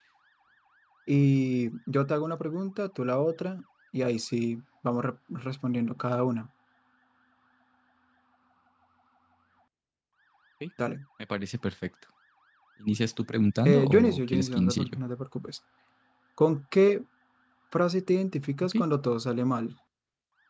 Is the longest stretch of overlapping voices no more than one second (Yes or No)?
No